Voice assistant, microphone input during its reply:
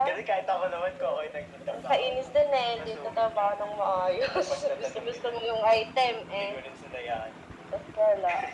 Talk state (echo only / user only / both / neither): echo only